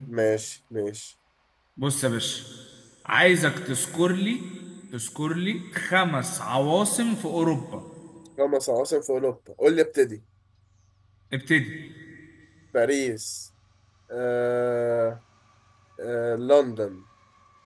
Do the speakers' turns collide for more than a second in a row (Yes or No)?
No